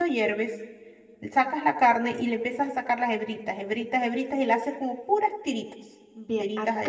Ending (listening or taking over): taking over